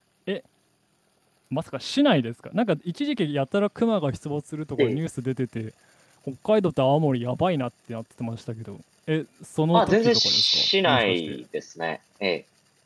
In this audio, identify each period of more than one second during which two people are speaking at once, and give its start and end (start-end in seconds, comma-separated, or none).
9.7-11.4